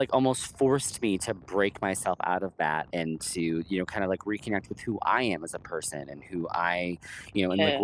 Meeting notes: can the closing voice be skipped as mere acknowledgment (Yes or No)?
Yes